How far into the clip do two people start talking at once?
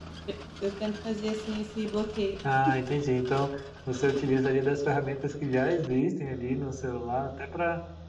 none

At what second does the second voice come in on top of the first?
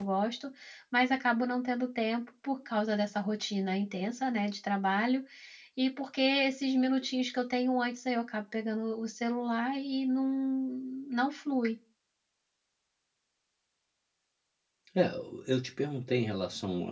none

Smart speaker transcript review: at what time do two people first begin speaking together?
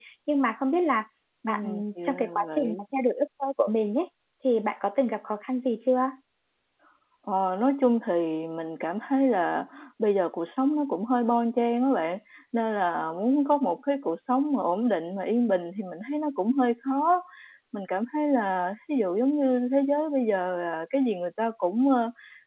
1.5 s

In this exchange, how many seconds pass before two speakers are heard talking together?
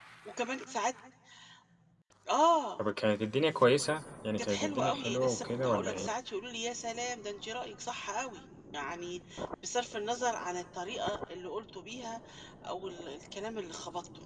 4.4 s

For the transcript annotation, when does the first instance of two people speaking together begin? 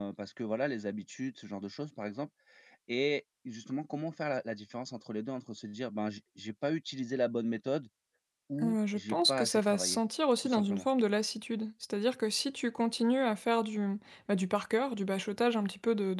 8.6 s

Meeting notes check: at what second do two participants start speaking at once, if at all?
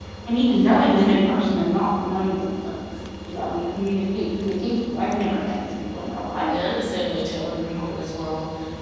none

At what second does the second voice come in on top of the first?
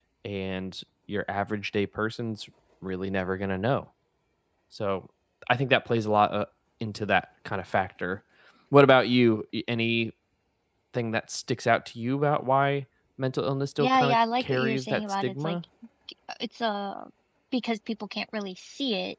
13.8 s

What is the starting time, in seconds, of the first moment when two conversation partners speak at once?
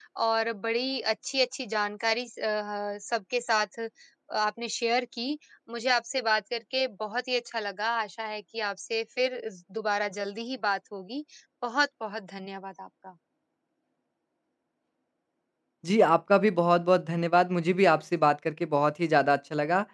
none

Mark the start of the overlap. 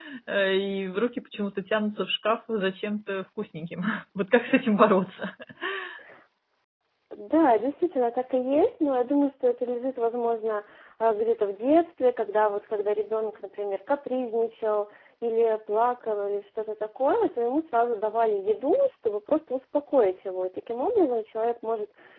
none

